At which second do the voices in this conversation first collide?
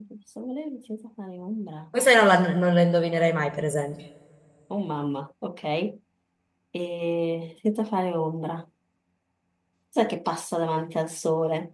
none

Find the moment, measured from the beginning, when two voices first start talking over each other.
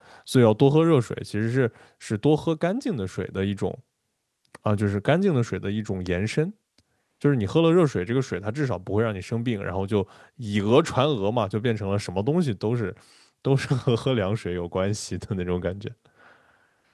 none

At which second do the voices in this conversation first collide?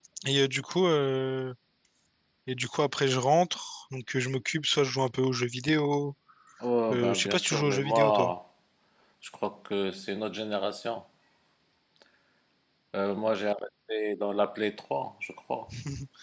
6.9 s

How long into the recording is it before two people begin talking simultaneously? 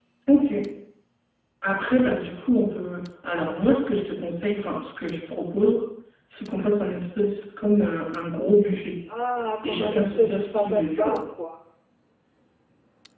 9.6 s

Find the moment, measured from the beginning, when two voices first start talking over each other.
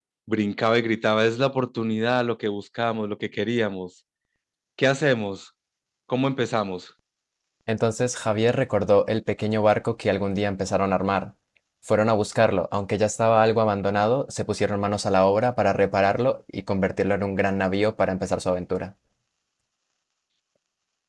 none

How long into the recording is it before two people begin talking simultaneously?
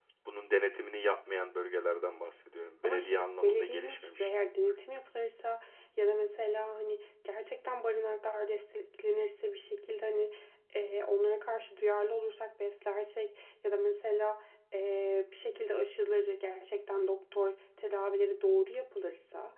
2.8 s

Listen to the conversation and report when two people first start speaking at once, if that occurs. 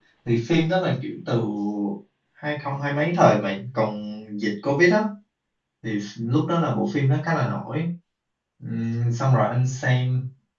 none

